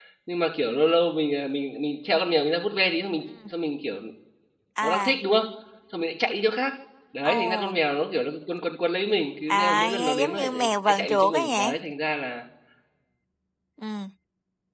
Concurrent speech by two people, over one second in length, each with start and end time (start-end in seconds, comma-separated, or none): 9.5-11.7